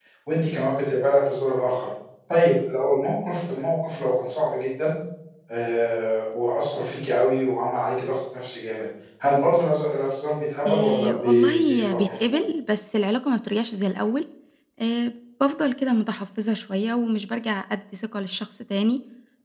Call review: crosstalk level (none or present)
present